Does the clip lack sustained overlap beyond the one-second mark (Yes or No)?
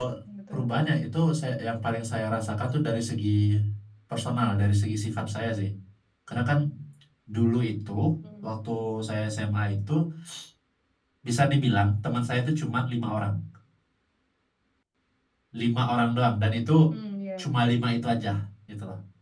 Yes